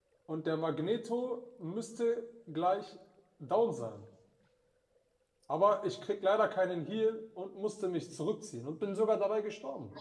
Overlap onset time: none

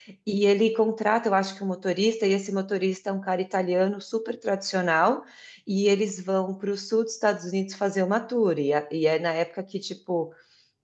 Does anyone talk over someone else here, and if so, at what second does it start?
none

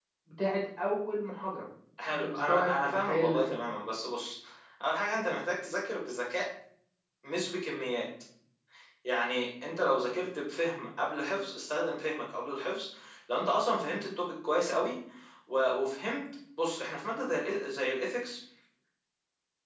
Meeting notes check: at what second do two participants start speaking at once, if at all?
2.1 s

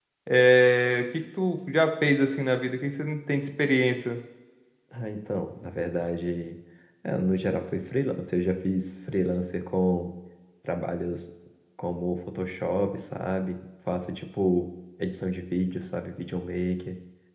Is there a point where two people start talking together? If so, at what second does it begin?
none

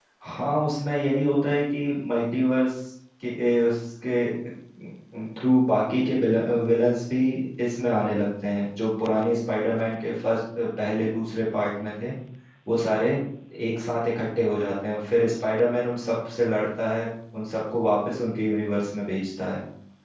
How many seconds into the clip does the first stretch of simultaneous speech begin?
none

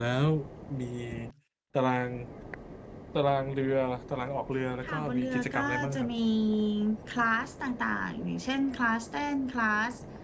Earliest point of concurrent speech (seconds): 4.8 s

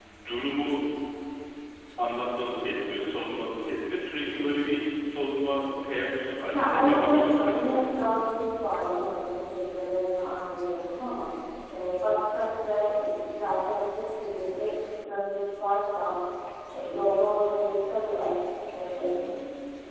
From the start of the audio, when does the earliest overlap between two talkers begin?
6.5 s

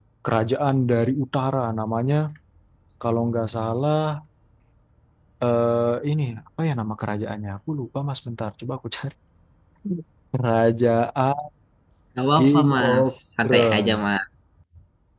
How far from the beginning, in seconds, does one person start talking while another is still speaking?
12.4 s

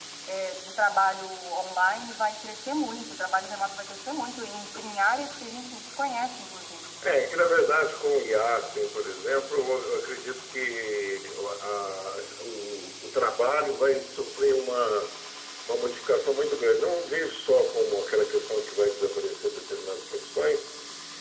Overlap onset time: none

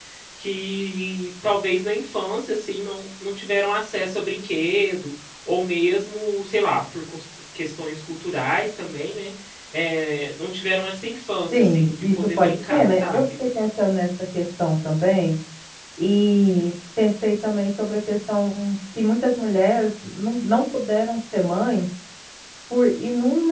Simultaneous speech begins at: 11.5 s

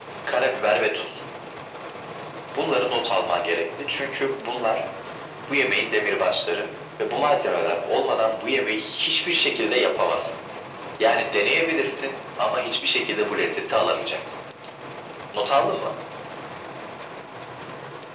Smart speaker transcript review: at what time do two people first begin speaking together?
none

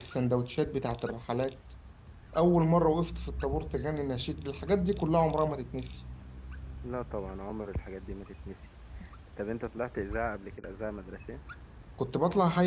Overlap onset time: none

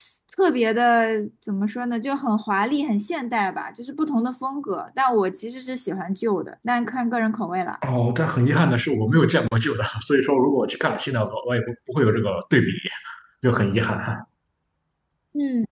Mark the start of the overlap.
none

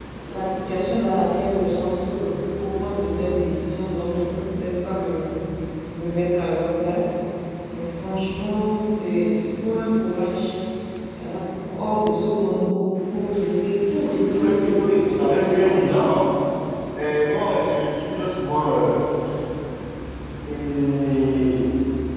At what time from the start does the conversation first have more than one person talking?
14.2 s

